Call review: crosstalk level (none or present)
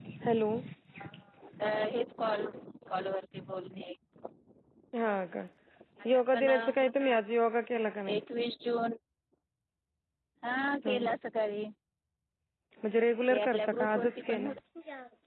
present